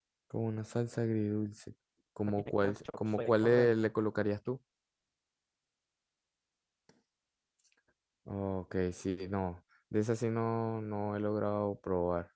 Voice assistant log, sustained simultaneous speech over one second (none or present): present